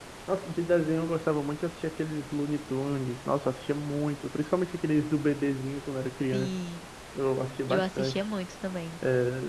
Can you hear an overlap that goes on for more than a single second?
No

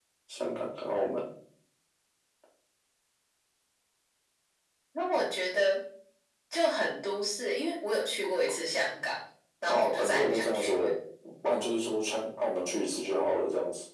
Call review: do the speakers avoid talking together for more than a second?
No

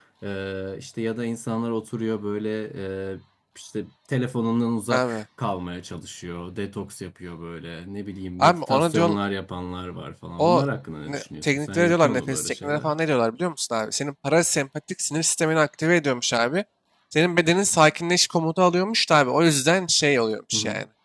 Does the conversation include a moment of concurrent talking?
Yes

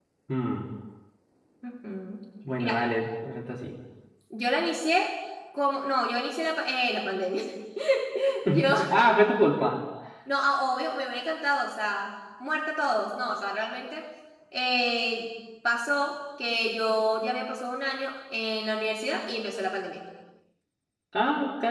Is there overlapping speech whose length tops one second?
No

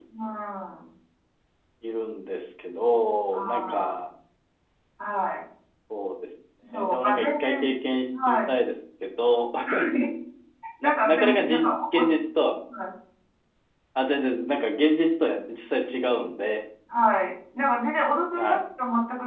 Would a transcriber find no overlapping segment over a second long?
No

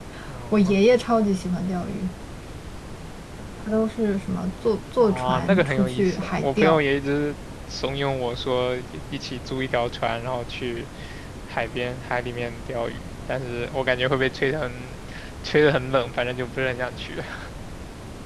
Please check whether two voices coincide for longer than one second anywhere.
Yes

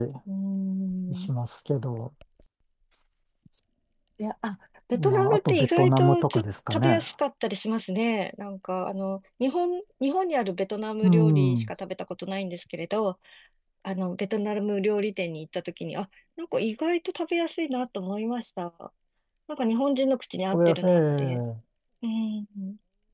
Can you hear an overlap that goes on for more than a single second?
Yes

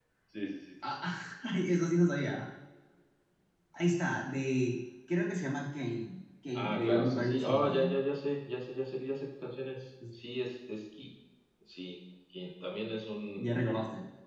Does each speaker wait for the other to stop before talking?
No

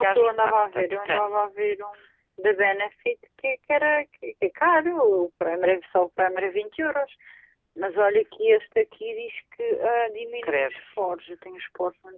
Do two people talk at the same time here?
Yes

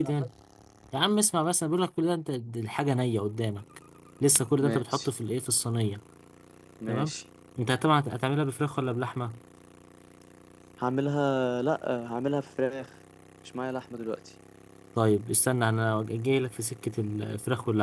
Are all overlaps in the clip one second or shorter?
Yes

